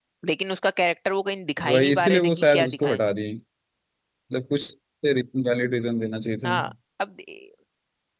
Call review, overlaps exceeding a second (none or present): present